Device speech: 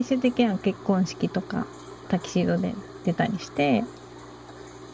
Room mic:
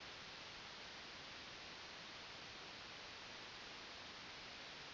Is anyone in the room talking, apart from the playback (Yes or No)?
No